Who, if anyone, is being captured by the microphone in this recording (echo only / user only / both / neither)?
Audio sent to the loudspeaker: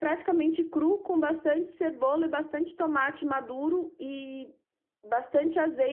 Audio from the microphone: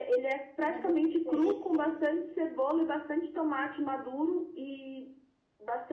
both